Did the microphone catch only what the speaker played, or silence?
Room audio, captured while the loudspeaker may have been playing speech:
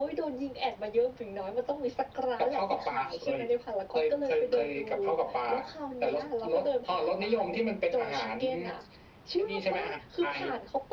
Yes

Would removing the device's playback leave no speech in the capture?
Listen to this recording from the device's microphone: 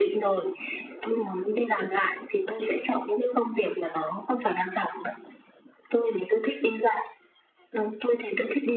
Yes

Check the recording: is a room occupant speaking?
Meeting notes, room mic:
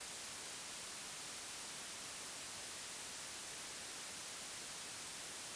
No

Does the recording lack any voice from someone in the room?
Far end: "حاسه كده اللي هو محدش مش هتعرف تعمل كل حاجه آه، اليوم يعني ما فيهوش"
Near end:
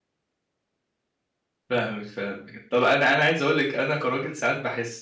No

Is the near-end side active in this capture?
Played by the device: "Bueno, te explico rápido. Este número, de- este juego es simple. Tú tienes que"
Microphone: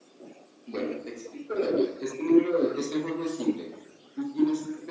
No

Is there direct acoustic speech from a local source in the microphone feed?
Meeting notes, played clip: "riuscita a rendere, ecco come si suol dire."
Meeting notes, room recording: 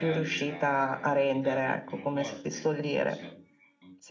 Yes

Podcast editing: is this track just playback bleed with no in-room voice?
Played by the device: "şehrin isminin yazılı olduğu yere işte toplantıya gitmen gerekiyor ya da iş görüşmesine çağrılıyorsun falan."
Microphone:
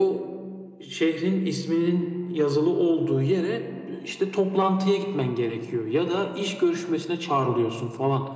Yes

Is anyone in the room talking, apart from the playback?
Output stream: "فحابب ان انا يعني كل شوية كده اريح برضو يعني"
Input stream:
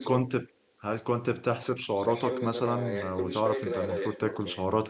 Yes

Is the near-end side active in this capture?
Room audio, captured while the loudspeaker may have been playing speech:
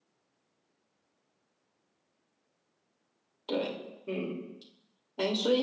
Yes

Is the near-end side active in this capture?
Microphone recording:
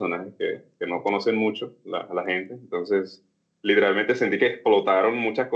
Yes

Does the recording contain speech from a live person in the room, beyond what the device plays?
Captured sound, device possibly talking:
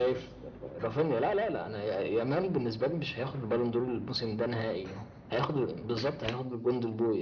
No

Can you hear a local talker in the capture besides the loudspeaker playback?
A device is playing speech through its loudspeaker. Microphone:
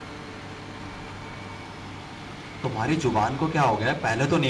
Yes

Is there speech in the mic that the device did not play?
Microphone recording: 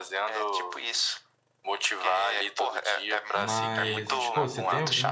Yes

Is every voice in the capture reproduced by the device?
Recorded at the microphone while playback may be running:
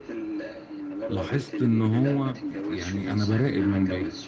No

